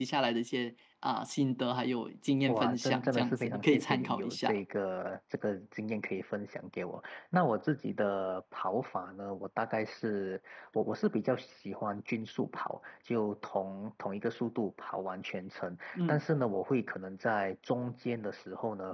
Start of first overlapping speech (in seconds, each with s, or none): 2.5 s